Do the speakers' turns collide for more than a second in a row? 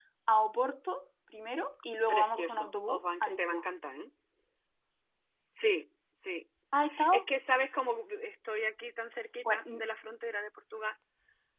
Yes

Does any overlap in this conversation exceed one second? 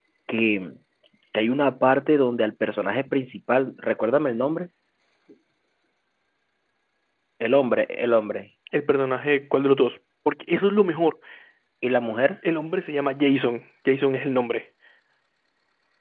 No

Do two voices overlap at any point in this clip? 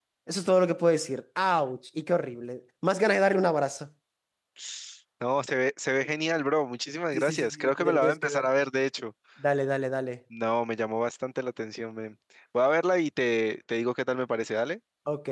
Yes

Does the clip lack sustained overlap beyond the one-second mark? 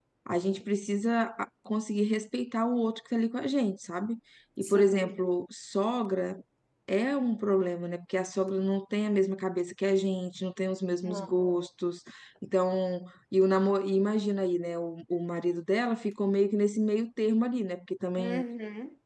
Yes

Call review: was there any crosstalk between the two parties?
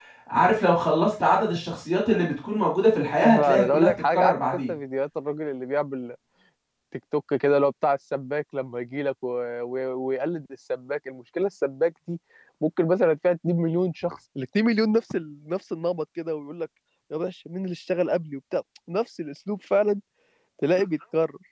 Yes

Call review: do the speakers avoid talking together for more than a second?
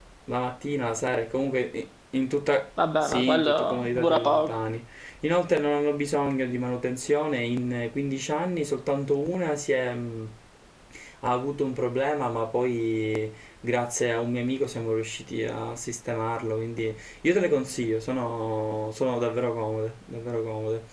No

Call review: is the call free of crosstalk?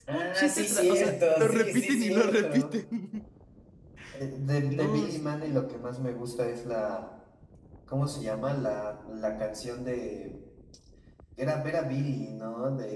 No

